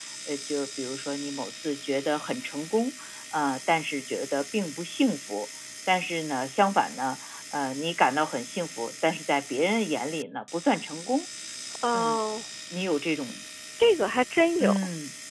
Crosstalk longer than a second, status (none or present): none